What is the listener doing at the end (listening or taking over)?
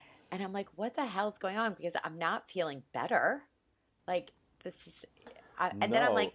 listening